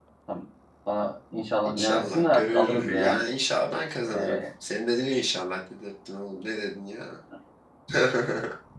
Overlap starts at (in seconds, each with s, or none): 1.6 s